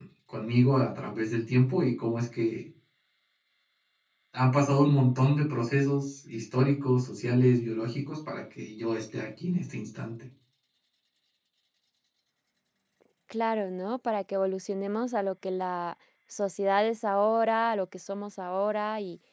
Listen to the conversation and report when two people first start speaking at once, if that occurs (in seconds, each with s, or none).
none